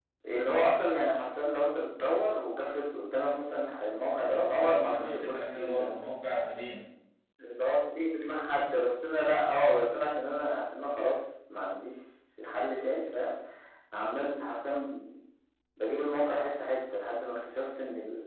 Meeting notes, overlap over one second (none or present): present